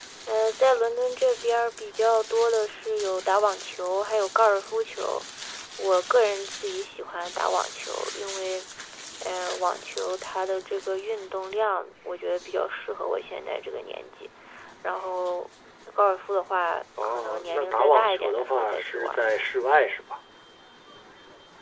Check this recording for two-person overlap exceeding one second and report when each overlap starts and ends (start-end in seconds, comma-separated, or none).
17.0-19.2